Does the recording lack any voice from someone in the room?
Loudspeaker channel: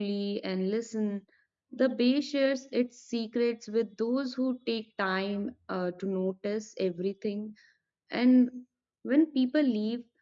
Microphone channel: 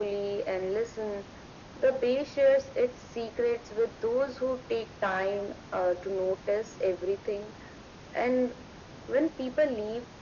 Yes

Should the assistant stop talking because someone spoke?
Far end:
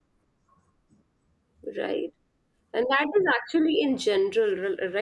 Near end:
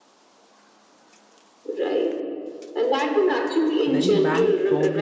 Yes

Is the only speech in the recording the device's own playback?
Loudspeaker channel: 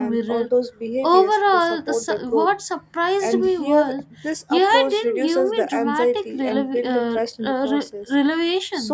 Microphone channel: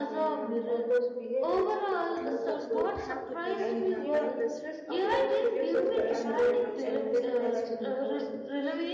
No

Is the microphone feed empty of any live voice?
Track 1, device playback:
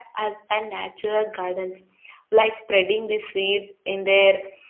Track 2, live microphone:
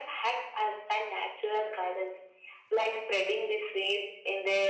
Yes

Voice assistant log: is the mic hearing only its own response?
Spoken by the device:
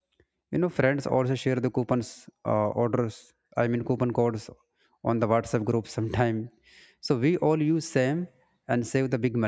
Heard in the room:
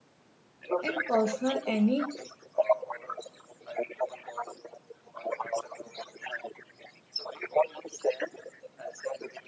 No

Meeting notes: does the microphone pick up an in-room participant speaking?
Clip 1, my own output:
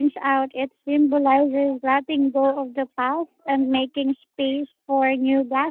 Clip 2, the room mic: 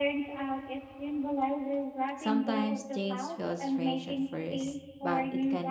Yes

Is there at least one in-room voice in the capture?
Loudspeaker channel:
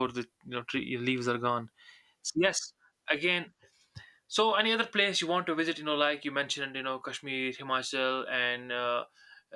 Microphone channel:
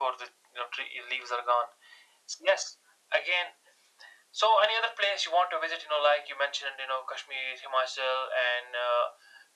No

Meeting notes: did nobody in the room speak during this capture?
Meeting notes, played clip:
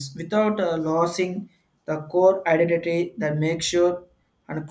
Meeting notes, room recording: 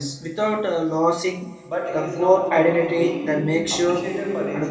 No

